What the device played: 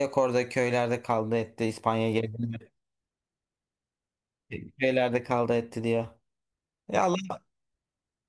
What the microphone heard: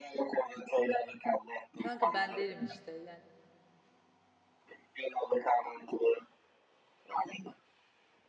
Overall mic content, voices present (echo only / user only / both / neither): both